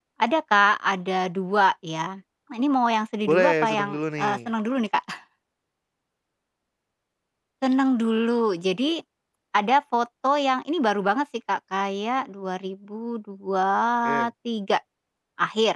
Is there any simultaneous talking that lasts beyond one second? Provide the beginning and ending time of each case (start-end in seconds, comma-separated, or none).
3.3-4.5